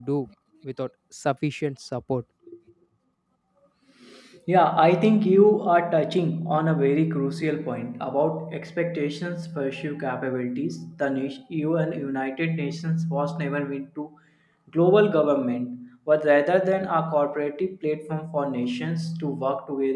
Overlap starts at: none

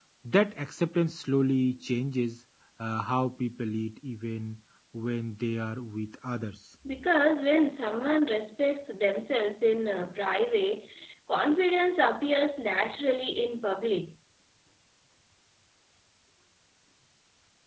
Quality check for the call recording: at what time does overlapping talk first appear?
none

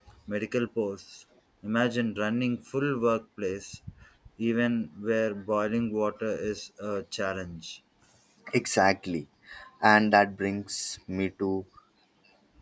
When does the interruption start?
none

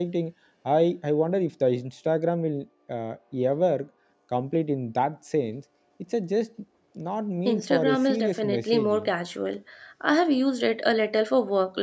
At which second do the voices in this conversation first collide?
7 s

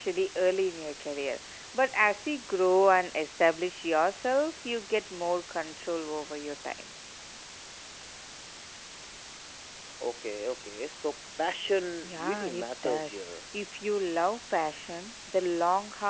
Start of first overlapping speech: 12 s

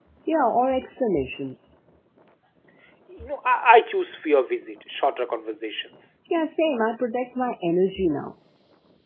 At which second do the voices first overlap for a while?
none

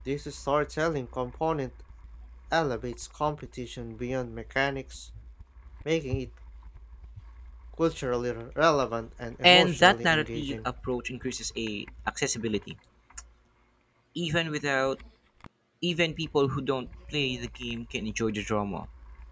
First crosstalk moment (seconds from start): 9 s

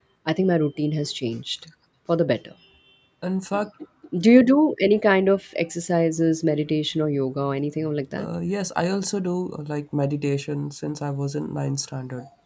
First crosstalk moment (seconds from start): none

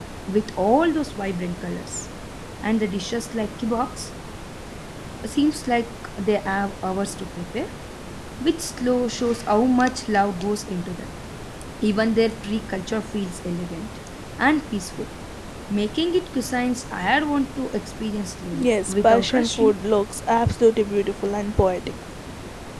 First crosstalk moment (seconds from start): 19 s

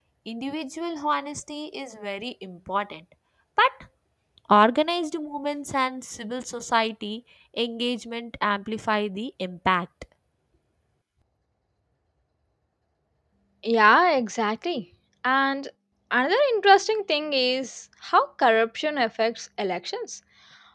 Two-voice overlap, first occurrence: none

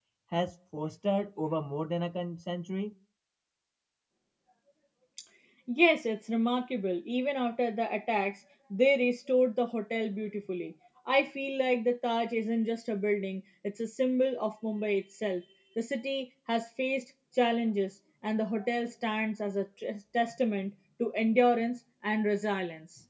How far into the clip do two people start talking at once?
none

